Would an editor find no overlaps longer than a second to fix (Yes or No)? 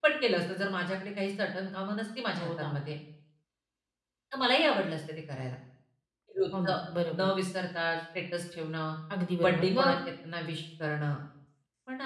Yes